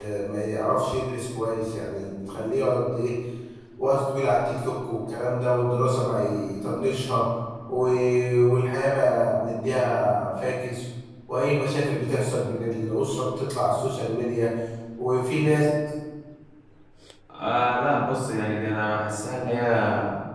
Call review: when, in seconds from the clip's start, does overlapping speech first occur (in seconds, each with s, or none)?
none